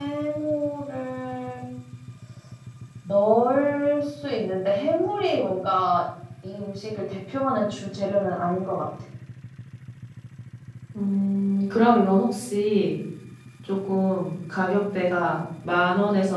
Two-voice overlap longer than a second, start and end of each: none

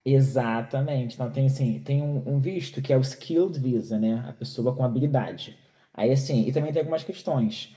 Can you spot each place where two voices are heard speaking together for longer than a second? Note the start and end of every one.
none

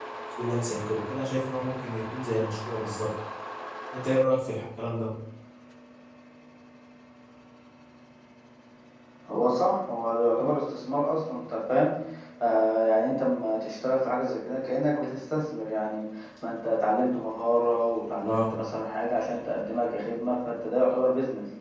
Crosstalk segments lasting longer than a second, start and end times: none

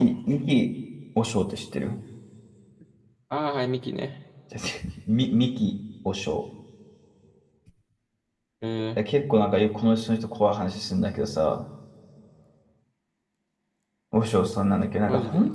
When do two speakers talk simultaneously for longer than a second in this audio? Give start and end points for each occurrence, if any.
none

